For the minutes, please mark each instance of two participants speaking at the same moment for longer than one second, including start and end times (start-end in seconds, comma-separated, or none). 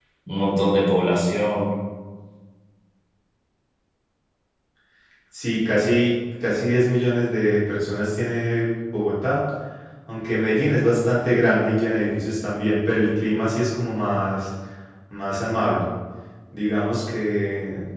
none